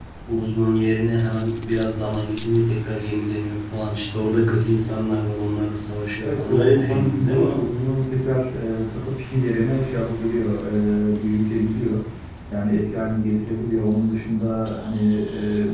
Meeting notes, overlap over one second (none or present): present